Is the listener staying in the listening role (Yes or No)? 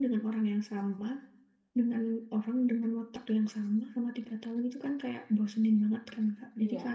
Yes